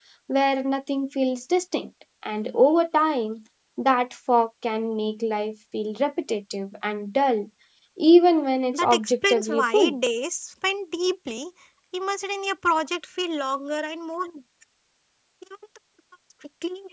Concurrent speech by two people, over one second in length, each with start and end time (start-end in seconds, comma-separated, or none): 8.7-9.9